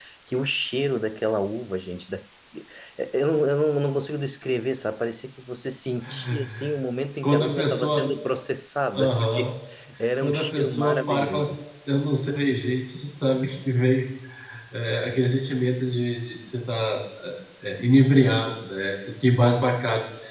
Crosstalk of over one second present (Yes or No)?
Yes